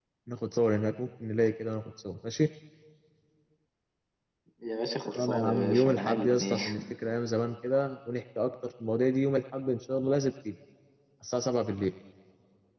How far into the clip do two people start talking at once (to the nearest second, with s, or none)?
5 s